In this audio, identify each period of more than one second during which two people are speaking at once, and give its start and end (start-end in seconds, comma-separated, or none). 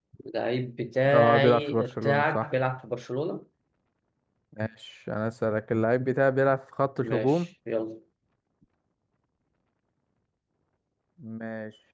1.1-2.5